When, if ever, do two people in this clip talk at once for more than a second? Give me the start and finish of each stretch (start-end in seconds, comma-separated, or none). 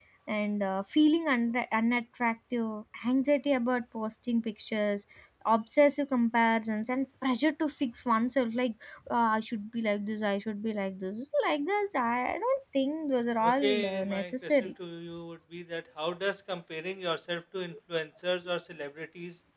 13.4-14.7